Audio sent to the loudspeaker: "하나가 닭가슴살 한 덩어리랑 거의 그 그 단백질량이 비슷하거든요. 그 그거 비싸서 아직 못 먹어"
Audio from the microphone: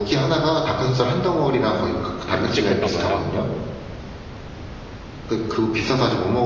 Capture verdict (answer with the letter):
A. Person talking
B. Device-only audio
A